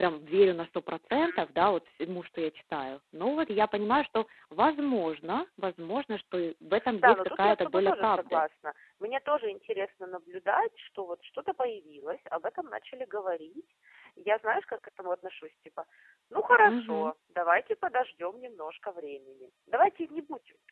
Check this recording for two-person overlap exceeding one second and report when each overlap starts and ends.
7.0-8.4

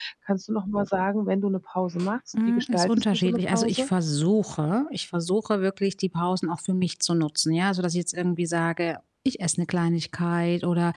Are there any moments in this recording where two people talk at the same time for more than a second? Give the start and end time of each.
2.5-3.9

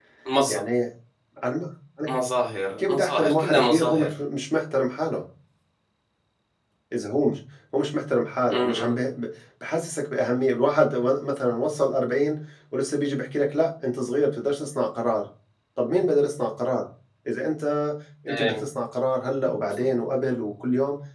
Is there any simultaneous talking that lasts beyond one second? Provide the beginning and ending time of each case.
2.8-4.1

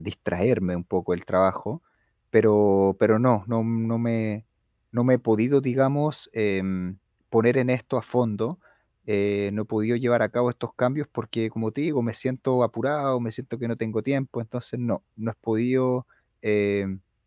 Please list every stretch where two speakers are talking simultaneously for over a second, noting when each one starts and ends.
none

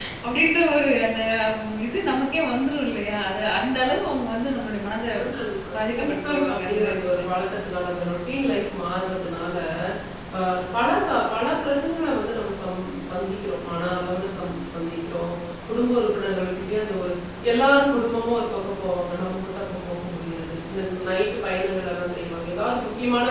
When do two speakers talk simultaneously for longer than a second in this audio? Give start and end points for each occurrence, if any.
5.9-7.2

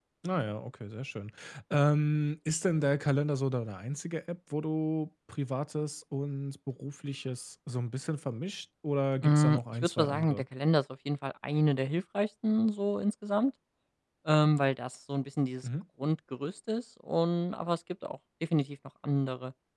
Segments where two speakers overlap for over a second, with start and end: 9.2-10.4

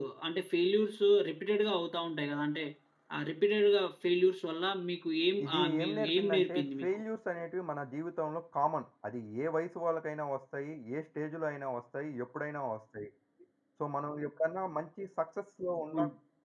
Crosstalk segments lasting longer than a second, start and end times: 5.4-6.9

